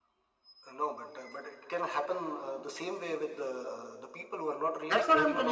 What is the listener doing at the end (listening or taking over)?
taking over